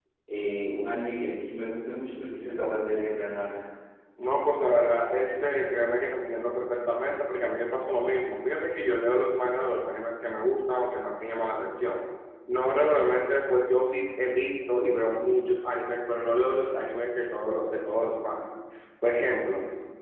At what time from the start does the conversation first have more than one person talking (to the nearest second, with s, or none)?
none